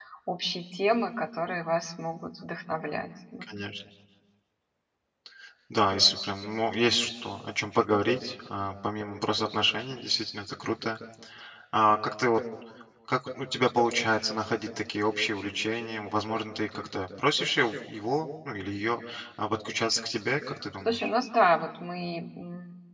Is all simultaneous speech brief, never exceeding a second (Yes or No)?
Yes